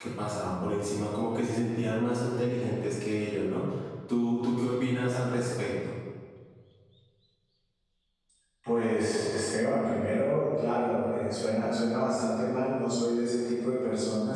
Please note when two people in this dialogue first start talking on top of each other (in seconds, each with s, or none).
none